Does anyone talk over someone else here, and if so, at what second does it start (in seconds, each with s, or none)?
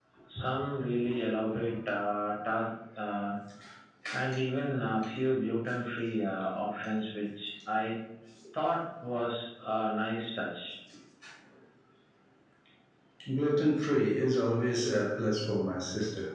none